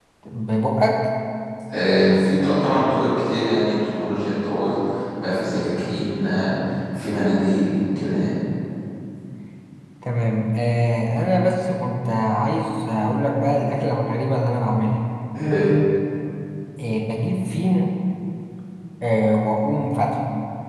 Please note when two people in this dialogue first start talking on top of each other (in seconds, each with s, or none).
none